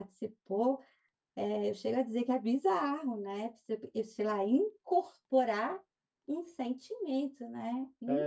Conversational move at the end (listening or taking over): taking over